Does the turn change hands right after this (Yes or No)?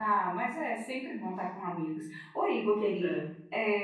No